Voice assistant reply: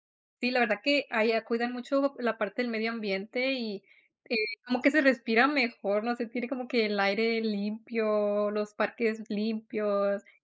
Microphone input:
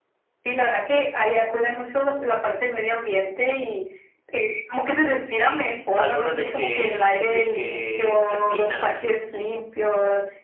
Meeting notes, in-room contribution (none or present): present